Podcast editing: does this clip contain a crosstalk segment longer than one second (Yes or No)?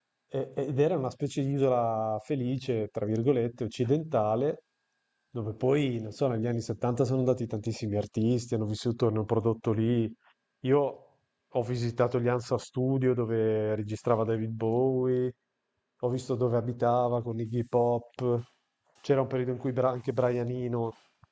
No